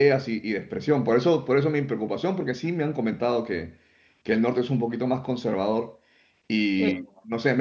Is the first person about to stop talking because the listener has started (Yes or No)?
No